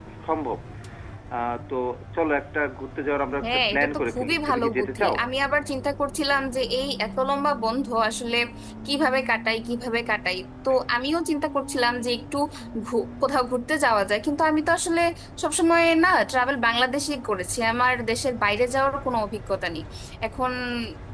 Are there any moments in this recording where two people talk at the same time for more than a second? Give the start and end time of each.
3.4-5.1

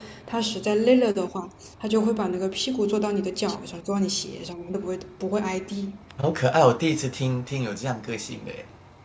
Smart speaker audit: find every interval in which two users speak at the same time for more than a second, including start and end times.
none

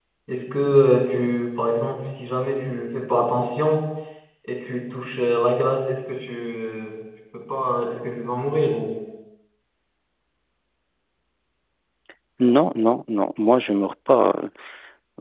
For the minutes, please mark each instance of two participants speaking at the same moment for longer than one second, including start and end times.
none

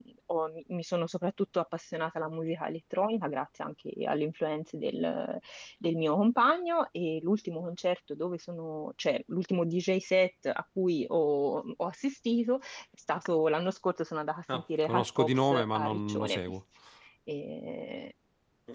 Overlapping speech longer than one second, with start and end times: 14.5-16.4

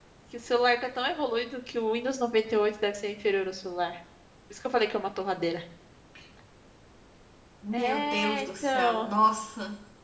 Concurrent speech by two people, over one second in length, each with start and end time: 7.7-9.1

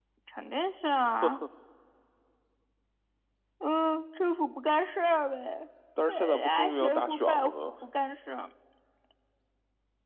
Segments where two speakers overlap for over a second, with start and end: 6.1-7.4

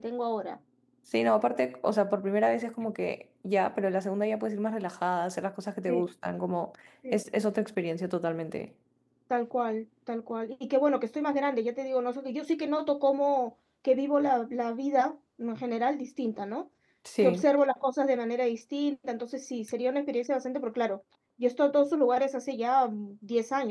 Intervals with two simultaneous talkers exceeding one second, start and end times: none

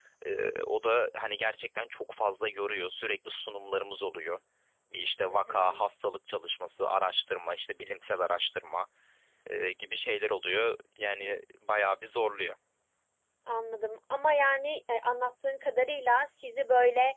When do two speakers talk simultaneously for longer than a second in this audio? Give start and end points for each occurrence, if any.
none

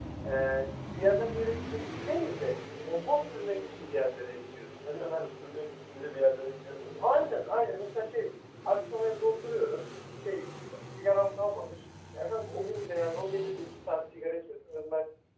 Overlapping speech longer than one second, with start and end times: none

